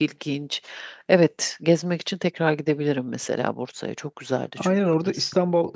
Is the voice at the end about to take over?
Yes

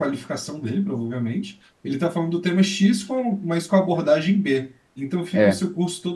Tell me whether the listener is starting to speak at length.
No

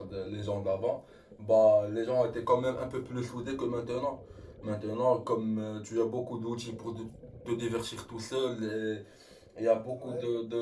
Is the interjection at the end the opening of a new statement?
No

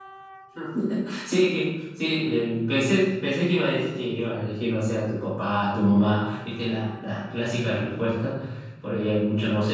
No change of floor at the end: Yes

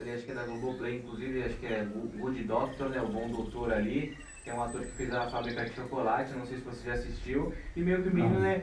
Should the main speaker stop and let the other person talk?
No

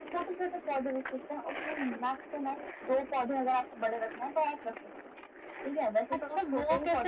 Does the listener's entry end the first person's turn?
Yes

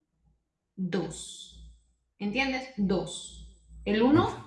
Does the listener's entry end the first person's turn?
No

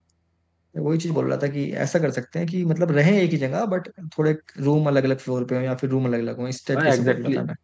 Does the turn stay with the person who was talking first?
No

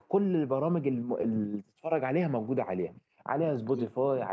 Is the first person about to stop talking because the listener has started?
No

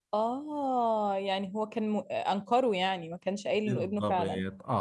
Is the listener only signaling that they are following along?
No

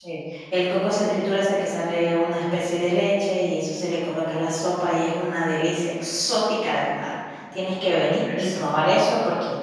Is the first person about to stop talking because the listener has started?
No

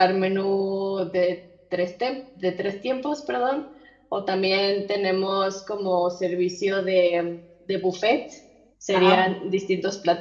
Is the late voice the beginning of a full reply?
No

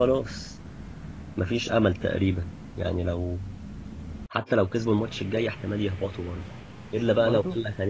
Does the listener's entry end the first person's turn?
No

